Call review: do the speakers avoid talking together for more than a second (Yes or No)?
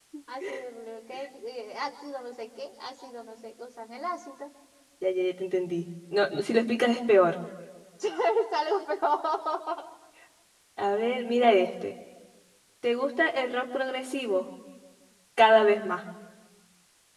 Yes